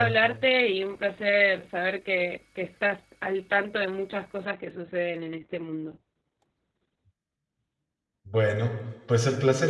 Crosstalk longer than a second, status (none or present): none